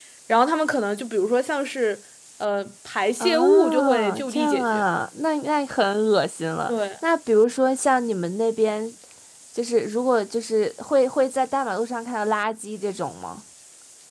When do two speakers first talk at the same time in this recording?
3.2 s

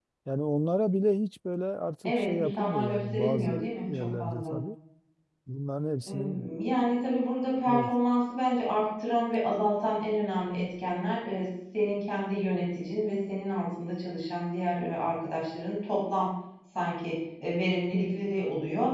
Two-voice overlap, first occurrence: 2.0 s

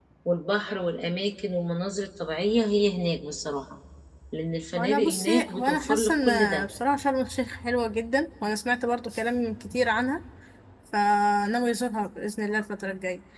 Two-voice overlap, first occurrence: 4.8 s

